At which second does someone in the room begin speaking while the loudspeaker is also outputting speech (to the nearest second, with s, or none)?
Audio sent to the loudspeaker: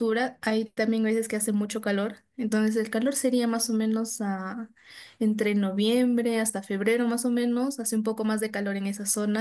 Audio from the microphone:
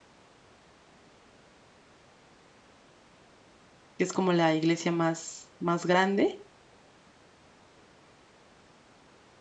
4 s